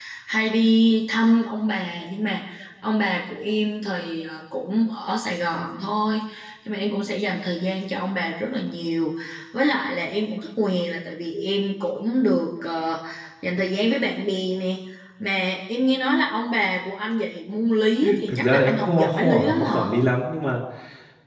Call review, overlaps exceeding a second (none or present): present